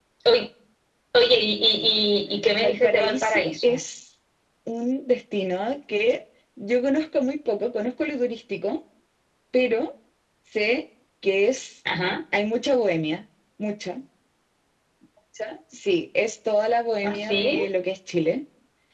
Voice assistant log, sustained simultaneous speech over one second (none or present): present